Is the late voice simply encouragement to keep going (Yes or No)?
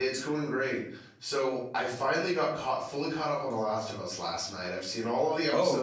Yes